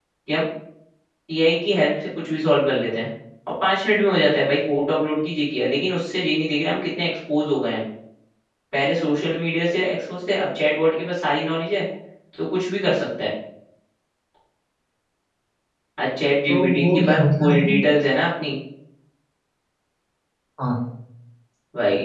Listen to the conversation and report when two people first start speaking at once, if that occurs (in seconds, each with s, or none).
16.5 s